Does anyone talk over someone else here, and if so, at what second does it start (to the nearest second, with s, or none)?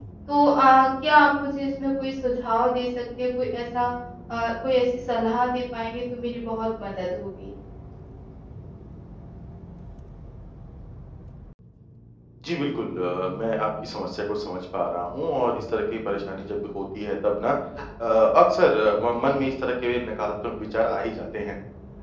none